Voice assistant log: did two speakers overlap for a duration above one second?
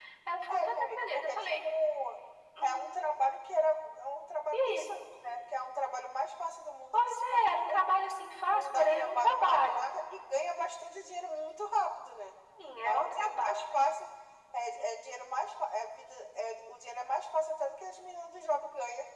Yes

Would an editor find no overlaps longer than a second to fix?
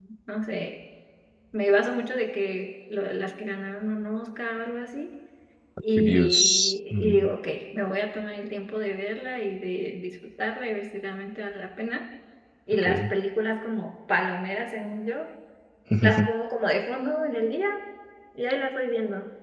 No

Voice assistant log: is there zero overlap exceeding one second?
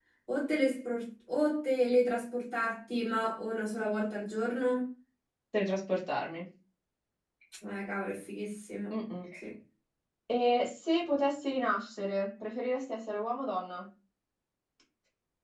Yes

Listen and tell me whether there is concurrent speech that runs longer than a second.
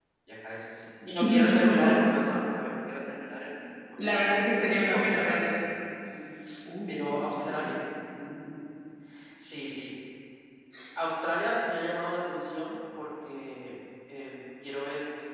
Yes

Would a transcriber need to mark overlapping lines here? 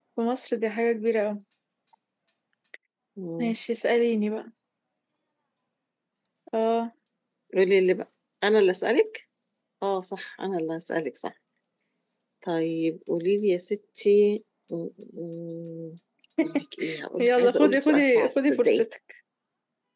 Yes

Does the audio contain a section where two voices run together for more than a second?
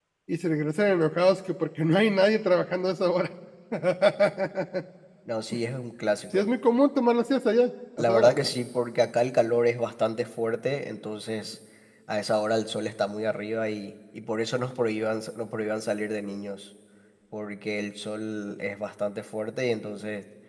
No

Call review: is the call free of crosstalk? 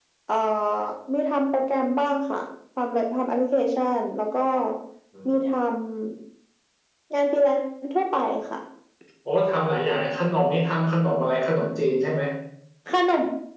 Yes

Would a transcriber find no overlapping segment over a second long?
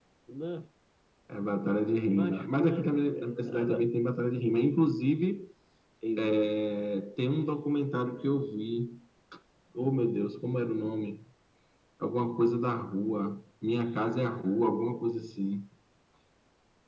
No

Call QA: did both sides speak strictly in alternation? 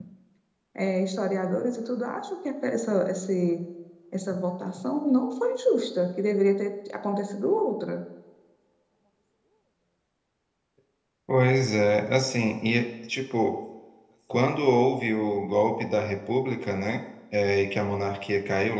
Yes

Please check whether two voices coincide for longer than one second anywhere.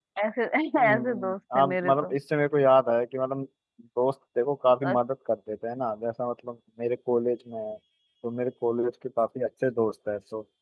Yes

